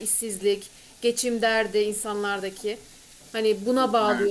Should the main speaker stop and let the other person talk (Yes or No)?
No